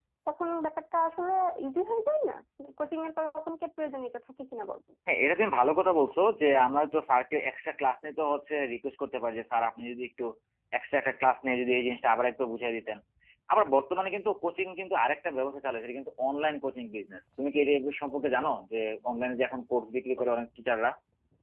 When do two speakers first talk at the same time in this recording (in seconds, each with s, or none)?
none